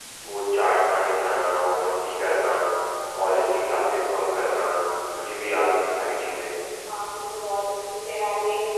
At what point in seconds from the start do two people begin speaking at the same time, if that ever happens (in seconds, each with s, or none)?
none